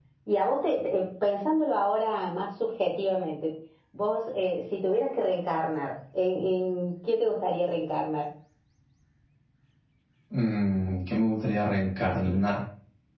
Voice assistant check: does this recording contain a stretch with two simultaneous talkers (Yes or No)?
No